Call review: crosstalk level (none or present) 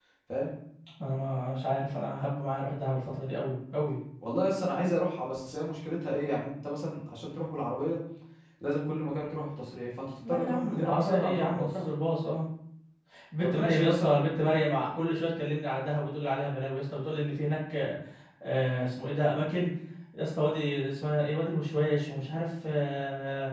present